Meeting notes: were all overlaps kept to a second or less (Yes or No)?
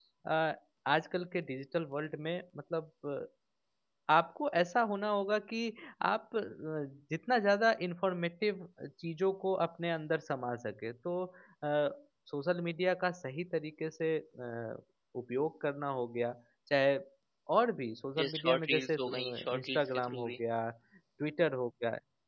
No